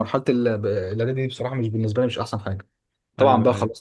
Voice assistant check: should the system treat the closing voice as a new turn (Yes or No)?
No